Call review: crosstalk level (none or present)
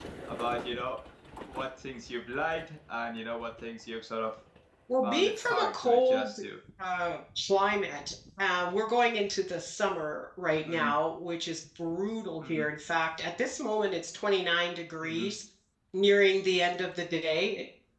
present